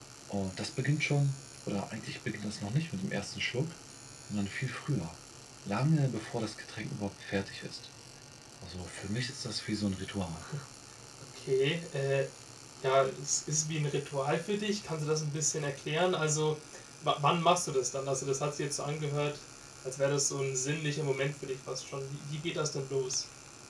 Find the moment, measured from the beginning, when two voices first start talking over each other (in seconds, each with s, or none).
none